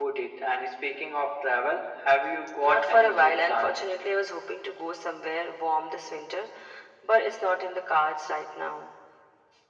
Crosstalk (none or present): present